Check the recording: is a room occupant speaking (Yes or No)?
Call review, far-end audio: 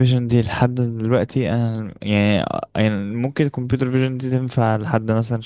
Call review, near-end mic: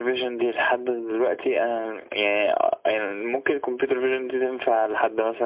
No